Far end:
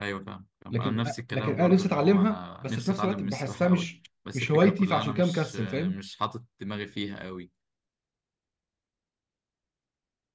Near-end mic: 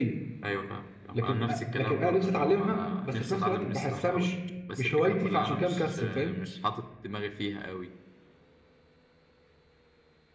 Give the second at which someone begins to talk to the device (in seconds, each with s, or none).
none